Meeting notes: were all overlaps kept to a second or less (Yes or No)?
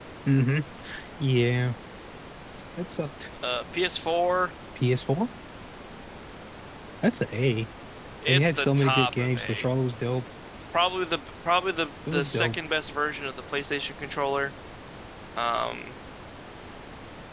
No